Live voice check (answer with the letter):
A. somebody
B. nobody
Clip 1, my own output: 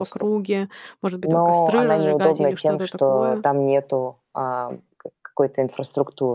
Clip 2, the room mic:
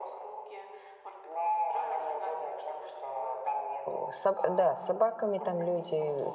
A